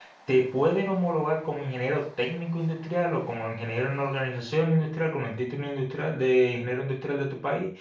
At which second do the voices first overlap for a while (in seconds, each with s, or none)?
none